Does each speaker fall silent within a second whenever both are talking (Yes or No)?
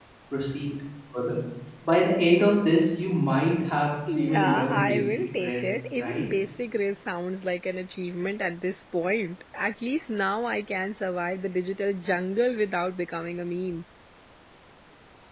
No